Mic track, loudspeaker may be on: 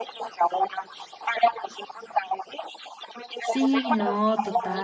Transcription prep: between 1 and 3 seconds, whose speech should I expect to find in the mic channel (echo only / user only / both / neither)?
echo only